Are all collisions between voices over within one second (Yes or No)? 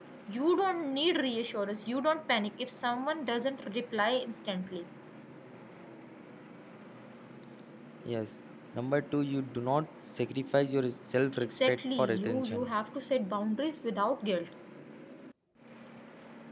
No